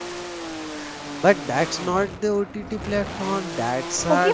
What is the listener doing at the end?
taking over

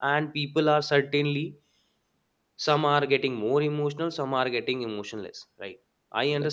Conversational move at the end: listening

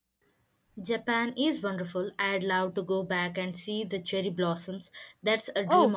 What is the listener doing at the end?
taking over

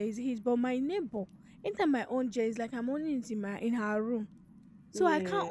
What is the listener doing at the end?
listening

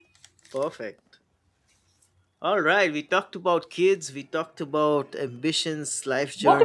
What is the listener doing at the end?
taking over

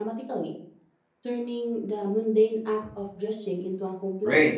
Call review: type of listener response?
taking over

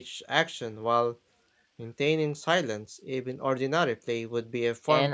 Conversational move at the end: taking over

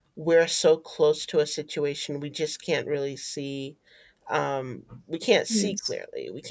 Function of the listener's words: listening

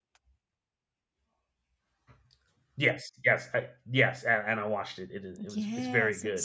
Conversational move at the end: taking over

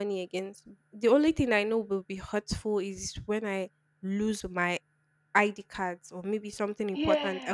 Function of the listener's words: taking over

